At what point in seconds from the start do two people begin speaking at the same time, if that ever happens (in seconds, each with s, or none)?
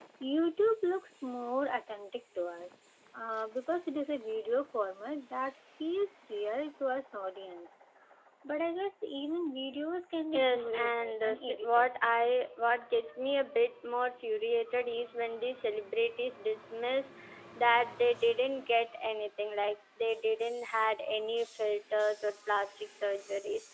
10.3 s